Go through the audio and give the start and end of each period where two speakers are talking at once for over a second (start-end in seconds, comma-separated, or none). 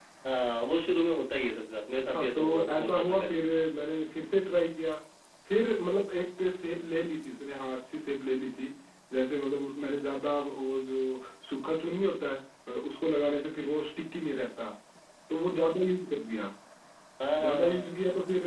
2.1-3.3